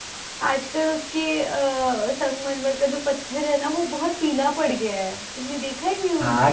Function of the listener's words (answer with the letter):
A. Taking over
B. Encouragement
A